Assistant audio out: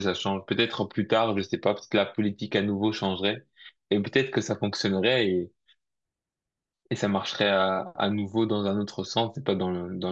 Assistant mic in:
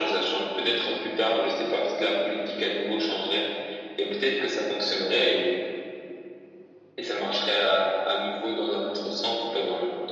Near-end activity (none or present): none